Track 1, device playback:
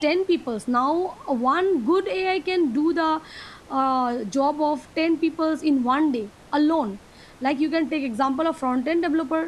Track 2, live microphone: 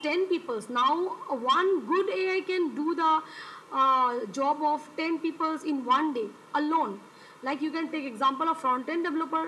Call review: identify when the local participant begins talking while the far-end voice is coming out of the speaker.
none

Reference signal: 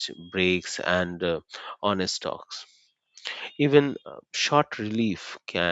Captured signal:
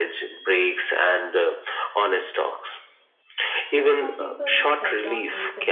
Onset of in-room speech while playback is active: 4 s

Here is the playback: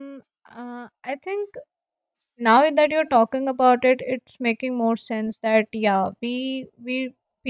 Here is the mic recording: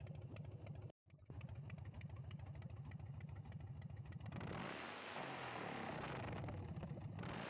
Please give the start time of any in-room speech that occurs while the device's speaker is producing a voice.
none

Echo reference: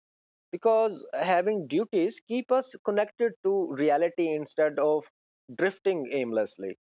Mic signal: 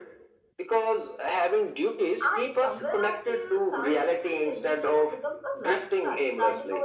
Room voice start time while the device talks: 2 s

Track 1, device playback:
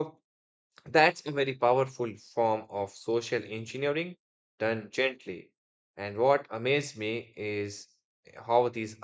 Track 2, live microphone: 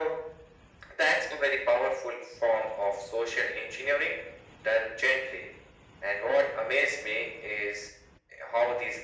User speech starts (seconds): none

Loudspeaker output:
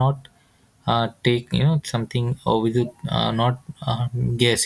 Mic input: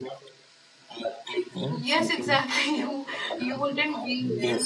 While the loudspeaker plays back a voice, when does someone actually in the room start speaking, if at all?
2 s

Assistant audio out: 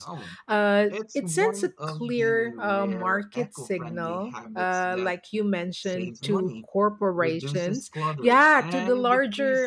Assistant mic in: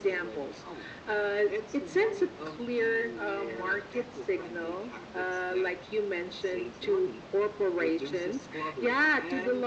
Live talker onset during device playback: none

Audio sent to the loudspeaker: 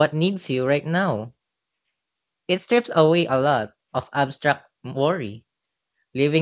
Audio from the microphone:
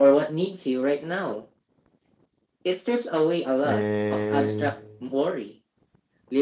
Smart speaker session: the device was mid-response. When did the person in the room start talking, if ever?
4 s

